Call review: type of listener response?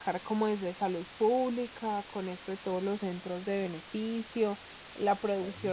listening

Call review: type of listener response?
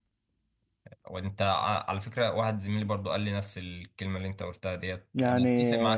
listening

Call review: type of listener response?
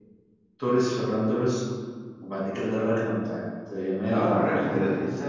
taking over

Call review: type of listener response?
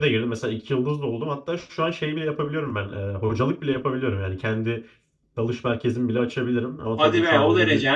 taking over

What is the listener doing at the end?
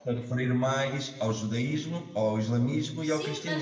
taking over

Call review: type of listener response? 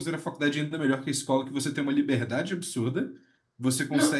listening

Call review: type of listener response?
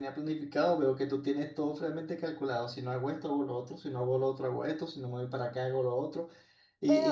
taking over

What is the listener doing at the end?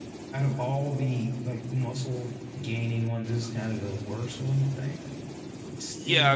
taking over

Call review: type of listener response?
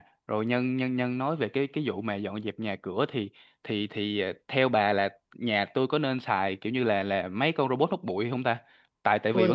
listening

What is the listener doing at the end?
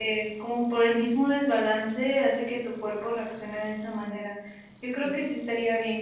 listening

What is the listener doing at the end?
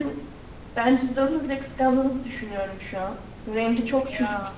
listening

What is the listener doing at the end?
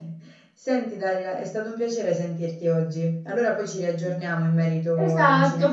taking over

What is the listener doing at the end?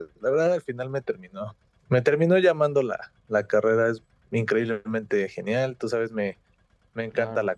listening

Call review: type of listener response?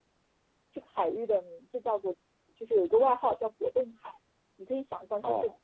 listening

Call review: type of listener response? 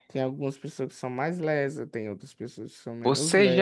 taking over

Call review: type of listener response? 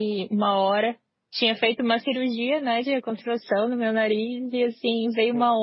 listening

